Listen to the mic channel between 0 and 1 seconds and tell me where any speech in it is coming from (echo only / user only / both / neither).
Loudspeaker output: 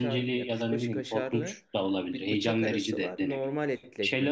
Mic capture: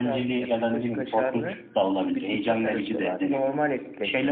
echo only